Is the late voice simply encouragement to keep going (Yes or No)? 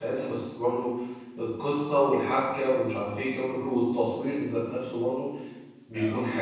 No